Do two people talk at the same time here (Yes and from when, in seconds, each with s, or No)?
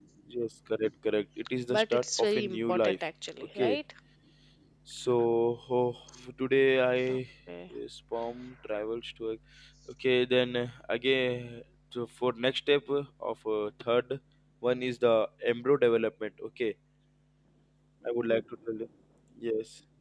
Yes, from 1.7 s